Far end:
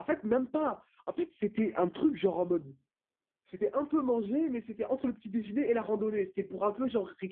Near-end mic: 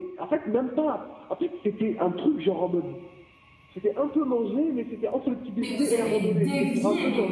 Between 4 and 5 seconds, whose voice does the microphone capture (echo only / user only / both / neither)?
echo only